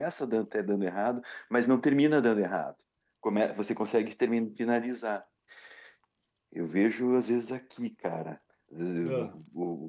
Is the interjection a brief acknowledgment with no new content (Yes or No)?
Yes